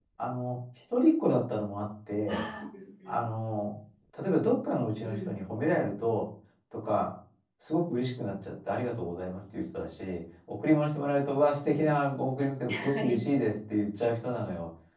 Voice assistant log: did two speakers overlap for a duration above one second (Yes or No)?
No